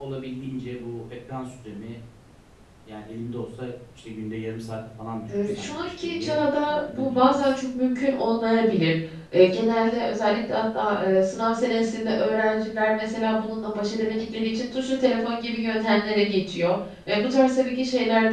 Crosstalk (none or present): present